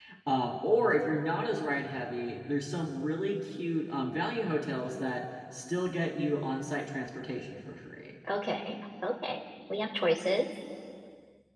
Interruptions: none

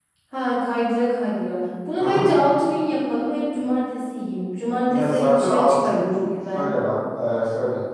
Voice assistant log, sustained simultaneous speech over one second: present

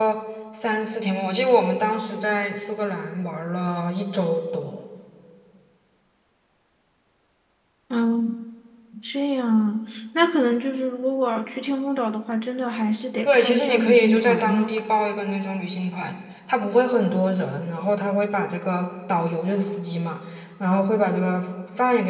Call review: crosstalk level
present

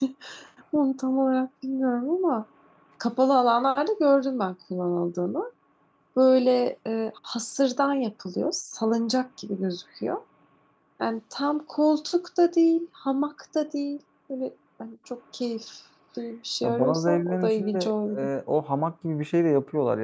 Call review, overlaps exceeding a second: present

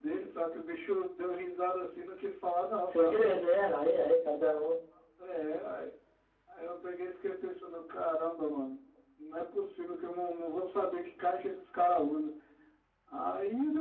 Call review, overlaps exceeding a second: none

